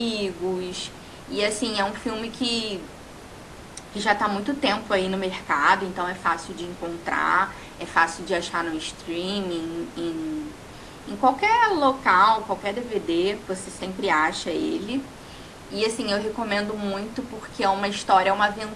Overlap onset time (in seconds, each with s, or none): none